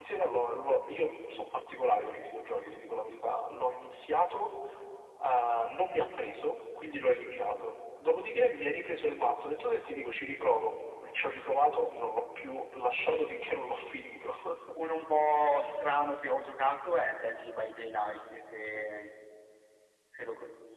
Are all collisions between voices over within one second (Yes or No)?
Yes